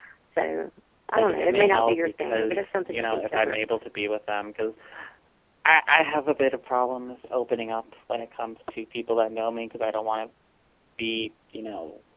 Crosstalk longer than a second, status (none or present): present